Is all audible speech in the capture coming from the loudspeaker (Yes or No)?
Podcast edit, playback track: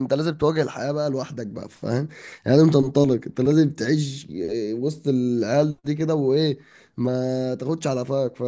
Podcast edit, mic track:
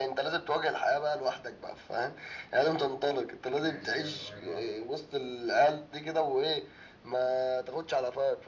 No